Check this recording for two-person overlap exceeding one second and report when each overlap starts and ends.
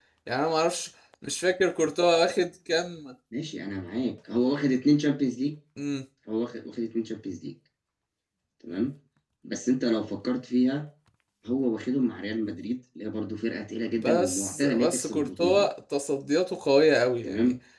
14.0-15.6

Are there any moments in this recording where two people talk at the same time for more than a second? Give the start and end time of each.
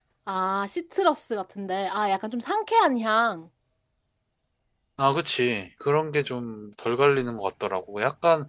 none

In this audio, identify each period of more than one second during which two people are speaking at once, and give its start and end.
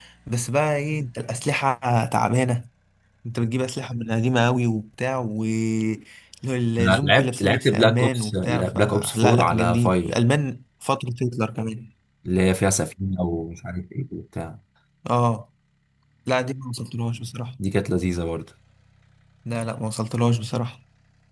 7.0-10.1

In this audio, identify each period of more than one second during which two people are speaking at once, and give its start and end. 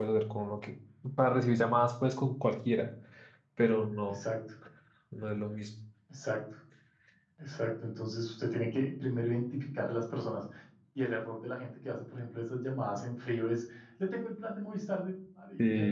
none

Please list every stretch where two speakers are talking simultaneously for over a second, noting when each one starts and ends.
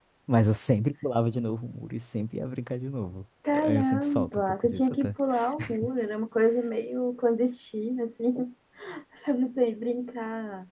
3.5-5.1

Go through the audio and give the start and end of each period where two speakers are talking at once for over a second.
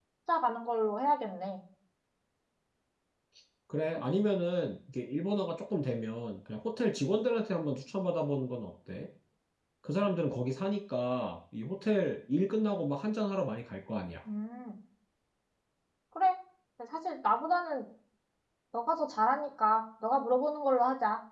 none

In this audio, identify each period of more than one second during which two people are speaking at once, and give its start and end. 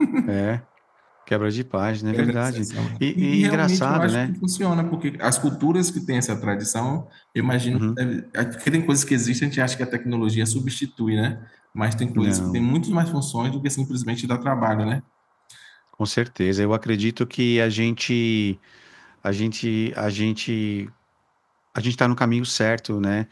2.1-4.3

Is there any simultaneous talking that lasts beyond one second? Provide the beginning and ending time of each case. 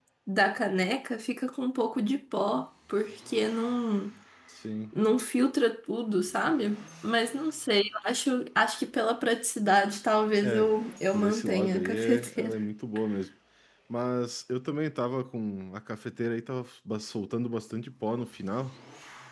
11.1-12.6

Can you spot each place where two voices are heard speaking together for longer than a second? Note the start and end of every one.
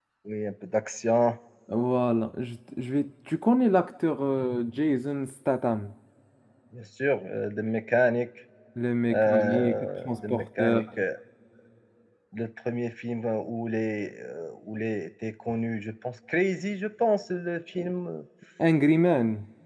9.1-10.8

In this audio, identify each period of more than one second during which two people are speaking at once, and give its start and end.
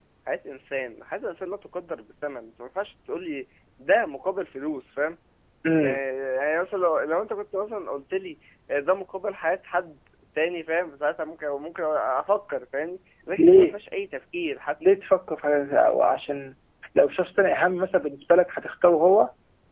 none

